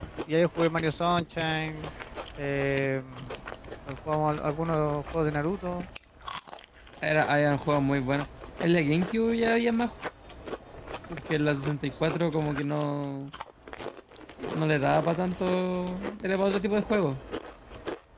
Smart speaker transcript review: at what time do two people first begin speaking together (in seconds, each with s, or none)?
none